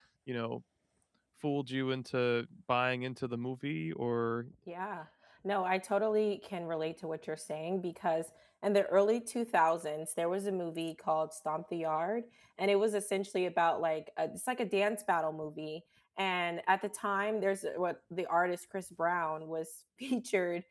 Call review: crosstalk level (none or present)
none